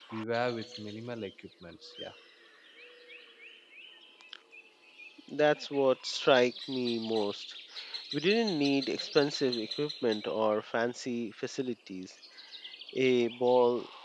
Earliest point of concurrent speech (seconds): none

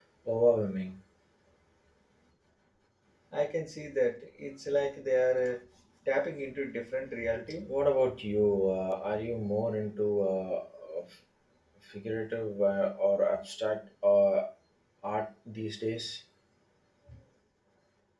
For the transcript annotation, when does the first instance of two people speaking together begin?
none

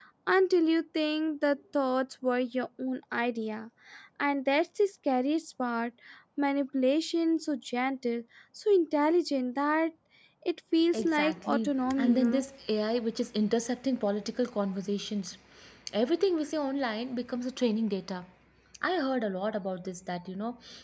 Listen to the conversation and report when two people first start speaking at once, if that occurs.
11 s

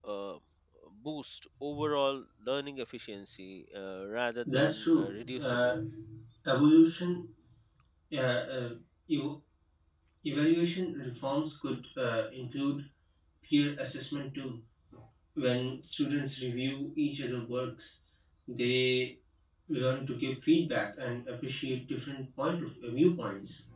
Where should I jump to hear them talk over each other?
4 s

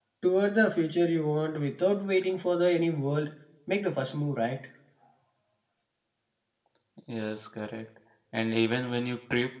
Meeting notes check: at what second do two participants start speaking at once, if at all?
none

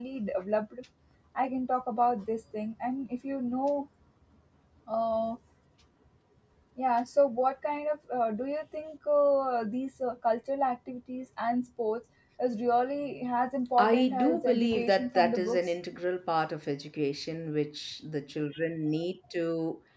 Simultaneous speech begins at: 14 s

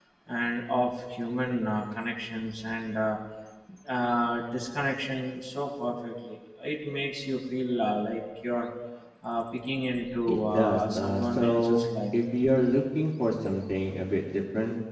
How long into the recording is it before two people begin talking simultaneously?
10 s

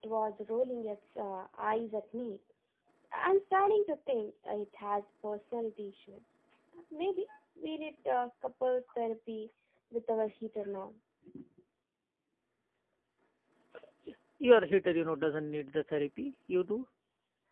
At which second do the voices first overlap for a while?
none

